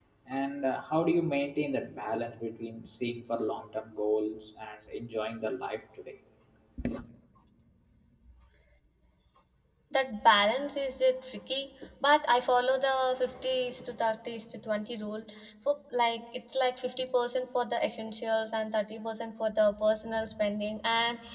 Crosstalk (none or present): none